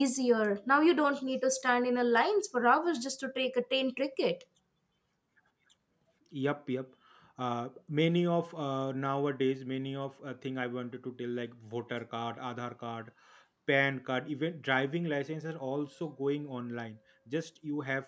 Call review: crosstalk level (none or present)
none